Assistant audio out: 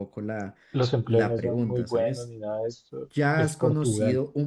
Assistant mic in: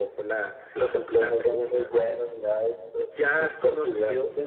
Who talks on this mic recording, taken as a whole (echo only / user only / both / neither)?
echo only